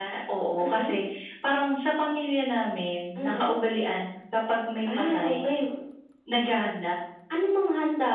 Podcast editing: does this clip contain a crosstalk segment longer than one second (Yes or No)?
No